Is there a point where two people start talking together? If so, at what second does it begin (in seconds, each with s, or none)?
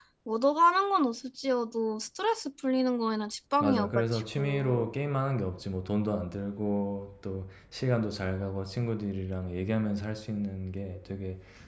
3.6 s